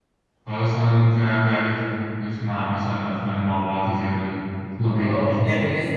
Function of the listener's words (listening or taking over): taking over